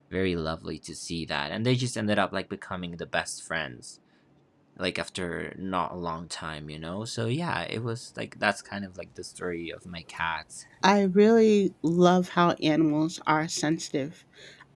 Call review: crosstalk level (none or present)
none